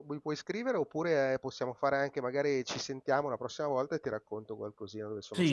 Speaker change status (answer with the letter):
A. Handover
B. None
A